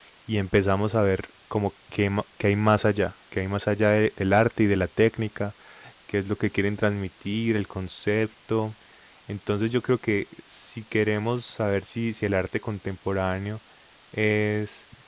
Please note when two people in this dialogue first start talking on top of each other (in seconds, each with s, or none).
none